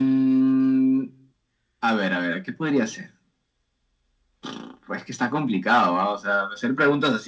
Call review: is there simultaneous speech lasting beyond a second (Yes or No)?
No